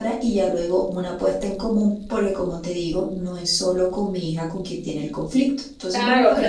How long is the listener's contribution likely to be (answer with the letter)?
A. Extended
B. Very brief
A